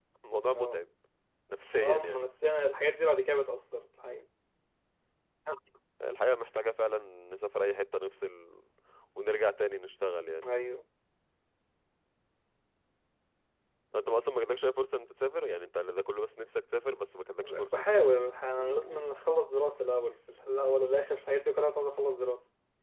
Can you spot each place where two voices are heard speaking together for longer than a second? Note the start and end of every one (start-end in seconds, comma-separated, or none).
none